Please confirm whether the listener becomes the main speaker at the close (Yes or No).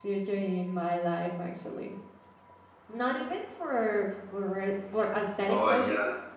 No